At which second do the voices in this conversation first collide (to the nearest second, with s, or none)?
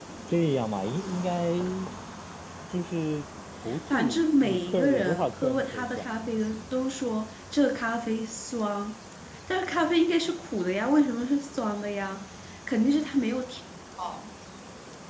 4 s